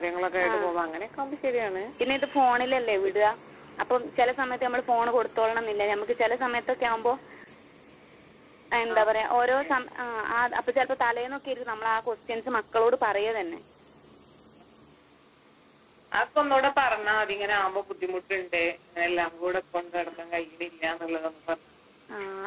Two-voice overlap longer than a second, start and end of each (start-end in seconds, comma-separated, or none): none